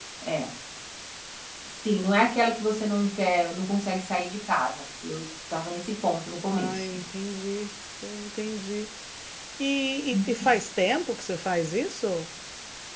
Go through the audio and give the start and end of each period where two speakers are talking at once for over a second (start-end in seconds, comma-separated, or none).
none